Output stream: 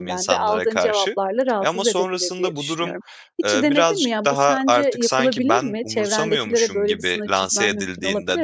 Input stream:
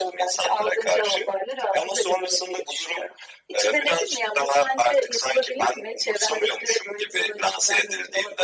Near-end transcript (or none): none